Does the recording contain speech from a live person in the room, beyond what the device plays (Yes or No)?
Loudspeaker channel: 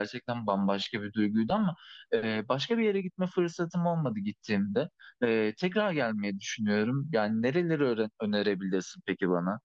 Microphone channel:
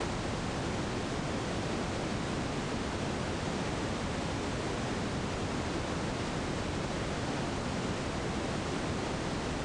No